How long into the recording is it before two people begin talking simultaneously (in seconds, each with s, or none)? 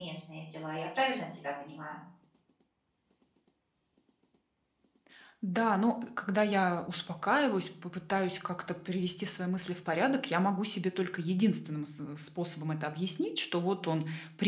none